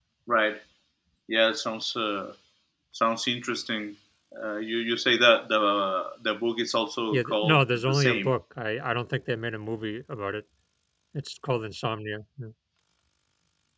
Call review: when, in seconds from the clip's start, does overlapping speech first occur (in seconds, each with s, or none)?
7.1 s